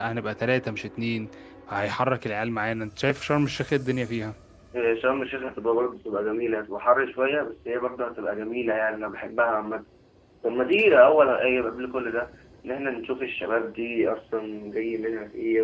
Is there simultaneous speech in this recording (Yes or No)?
No